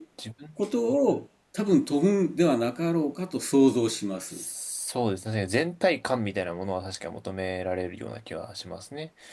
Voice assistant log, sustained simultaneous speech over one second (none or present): none